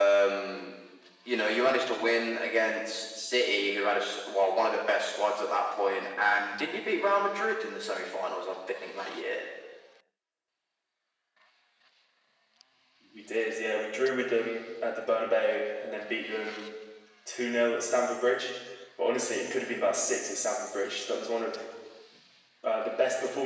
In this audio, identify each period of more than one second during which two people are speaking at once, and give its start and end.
none

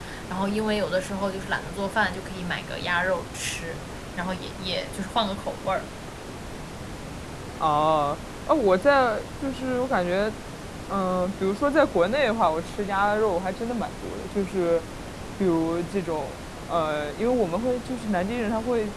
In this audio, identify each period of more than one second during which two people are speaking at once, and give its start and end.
none

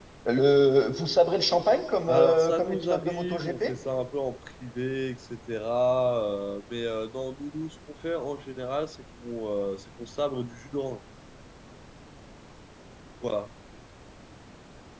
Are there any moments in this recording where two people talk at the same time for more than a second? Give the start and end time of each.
2.1-3.6

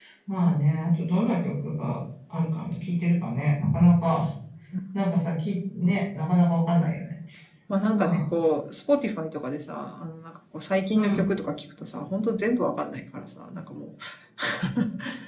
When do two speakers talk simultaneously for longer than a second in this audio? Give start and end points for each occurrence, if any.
none

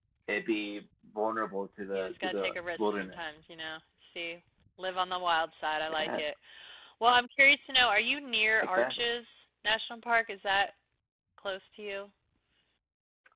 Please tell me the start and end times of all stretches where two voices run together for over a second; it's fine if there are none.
1.9-3.4

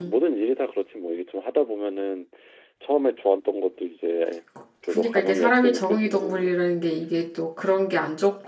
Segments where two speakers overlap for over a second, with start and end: 4.9-6.5

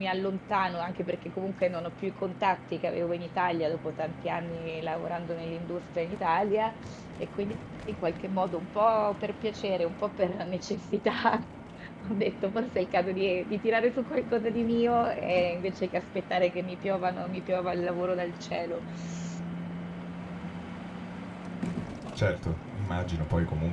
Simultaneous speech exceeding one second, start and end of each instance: none

